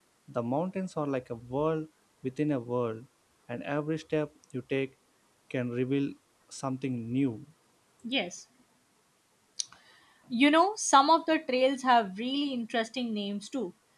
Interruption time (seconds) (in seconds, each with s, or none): none